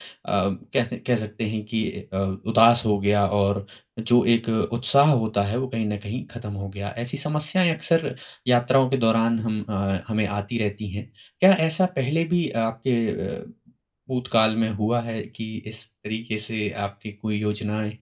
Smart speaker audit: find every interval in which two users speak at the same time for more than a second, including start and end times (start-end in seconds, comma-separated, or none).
none